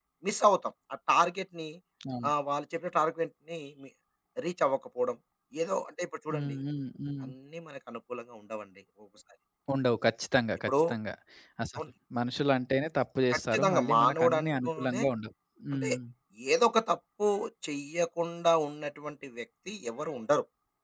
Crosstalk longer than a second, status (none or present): present